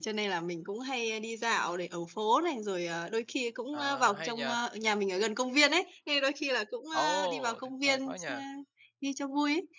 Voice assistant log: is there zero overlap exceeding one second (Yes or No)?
No